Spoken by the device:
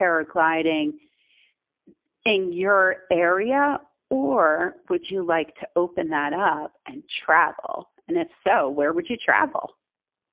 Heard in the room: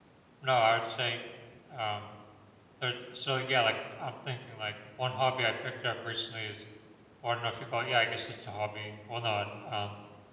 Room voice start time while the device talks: 0.4 s

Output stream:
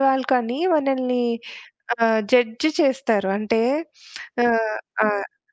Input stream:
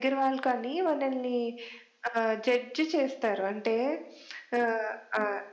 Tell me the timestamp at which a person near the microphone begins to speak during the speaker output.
none

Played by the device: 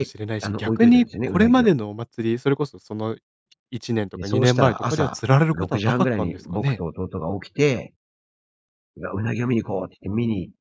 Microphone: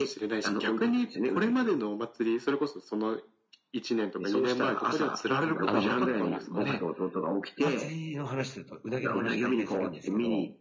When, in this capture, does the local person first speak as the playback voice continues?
5.4 s

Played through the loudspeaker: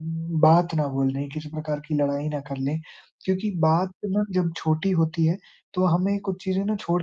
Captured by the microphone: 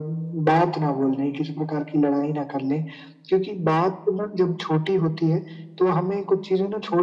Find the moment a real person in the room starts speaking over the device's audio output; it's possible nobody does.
none

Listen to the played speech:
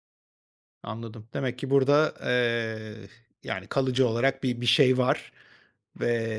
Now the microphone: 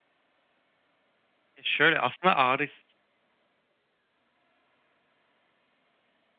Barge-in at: 1.6 s

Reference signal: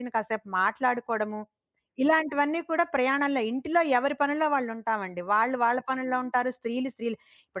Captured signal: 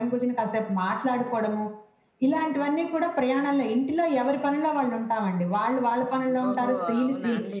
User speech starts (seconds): 6.5 s

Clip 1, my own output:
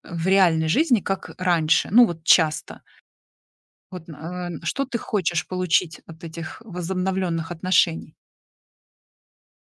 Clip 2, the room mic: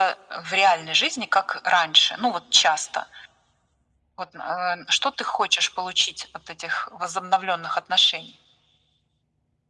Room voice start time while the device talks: none

